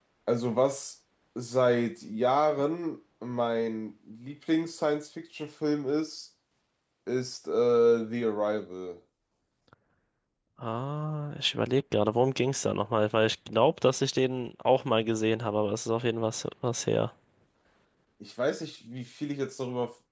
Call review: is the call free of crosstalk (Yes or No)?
Yes